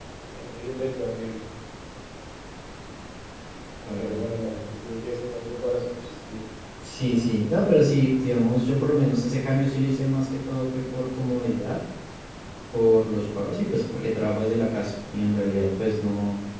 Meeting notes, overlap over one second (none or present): none